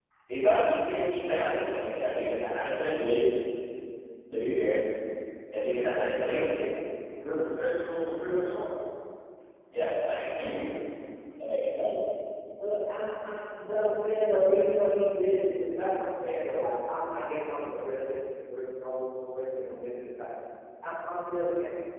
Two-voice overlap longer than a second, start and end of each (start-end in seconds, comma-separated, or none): none